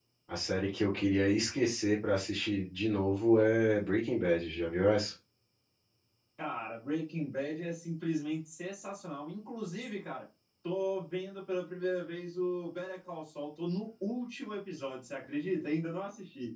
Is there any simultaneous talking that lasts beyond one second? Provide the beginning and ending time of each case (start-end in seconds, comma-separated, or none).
none